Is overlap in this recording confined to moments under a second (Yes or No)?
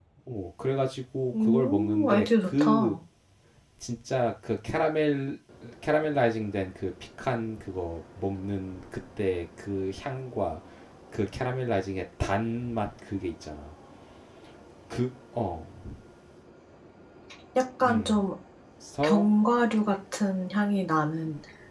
No